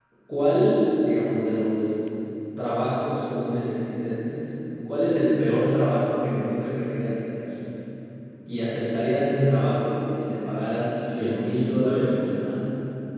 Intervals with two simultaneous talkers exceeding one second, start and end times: 11.0-12.3

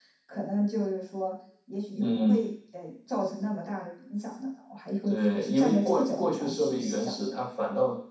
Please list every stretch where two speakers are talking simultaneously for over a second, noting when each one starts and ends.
5.1-7.4

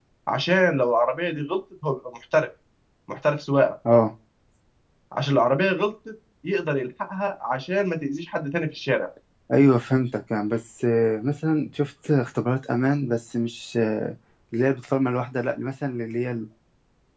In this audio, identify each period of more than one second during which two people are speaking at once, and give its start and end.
none

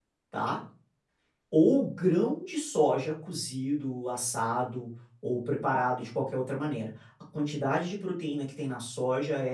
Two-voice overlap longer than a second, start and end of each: none

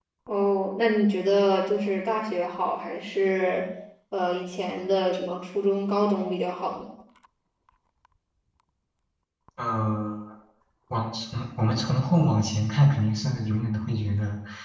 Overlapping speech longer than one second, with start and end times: none

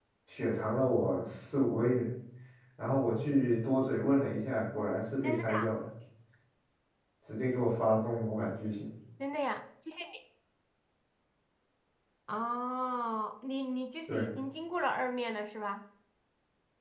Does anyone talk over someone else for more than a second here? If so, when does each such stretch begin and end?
none

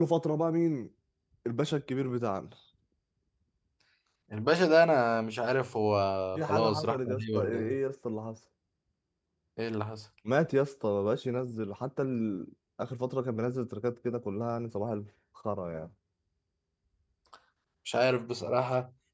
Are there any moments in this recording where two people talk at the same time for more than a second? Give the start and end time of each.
6.4-7.8

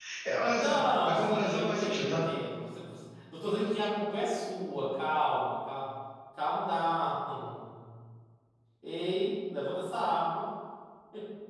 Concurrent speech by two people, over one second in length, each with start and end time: 0.6-2.2

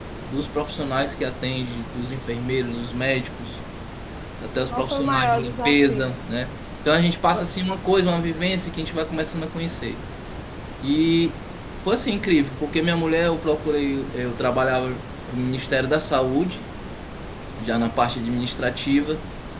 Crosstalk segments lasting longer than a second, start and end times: 4.7-6.2

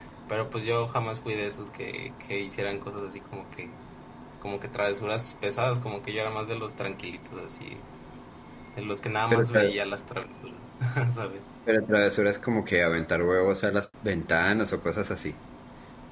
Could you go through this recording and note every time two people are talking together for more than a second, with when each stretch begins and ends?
none

